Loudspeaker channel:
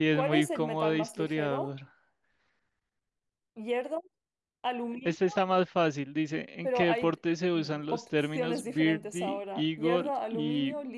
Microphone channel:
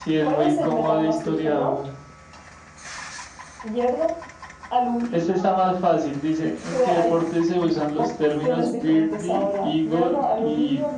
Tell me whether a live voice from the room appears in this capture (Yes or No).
No